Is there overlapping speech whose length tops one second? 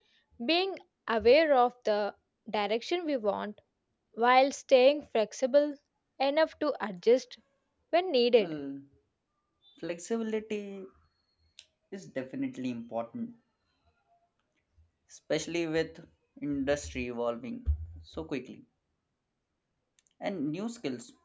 No

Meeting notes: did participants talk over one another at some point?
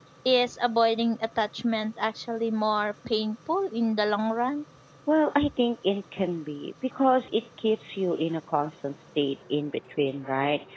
No

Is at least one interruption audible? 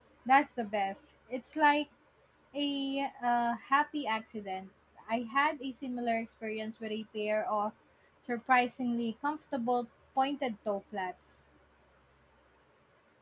No

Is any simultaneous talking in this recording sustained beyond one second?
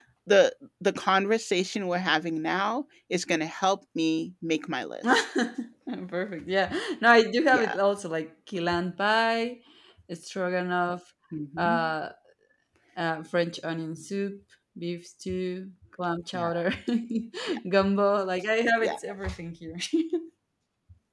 No

